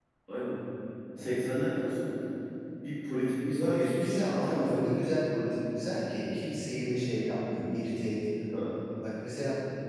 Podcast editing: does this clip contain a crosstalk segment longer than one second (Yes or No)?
Yes